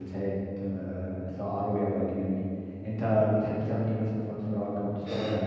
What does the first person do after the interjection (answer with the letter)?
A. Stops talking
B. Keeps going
A